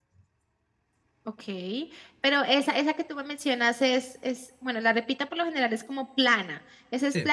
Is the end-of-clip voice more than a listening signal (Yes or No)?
No